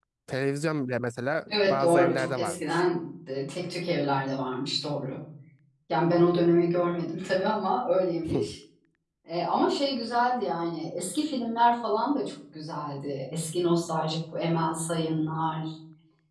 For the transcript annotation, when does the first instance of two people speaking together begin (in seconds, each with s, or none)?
1.5 s